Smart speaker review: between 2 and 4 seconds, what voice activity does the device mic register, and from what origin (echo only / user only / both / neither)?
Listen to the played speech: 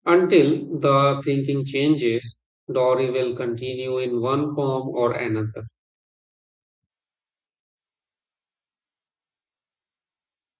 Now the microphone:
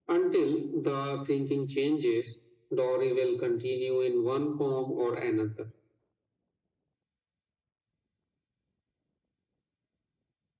echo only